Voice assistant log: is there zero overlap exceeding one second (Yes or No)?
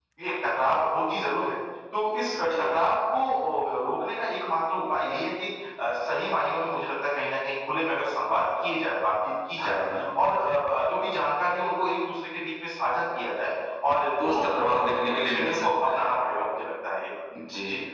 No